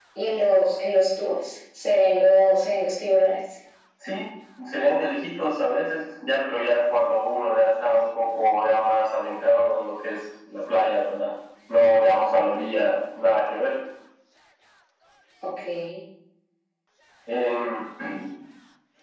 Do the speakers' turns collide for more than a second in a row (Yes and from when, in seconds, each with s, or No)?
No